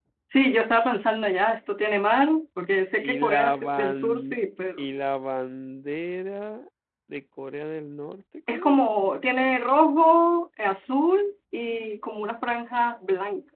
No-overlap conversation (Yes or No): No